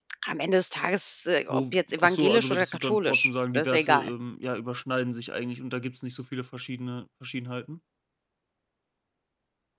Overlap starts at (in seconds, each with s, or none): 1.5 s